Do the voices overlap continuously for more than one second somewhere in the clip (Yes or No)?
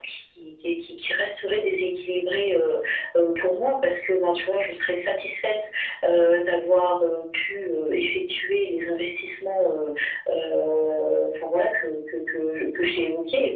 No